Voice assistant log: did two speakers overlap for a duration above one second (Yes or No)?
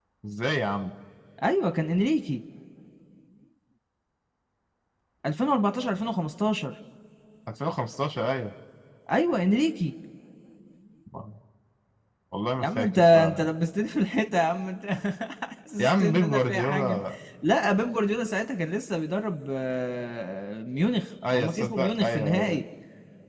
Yes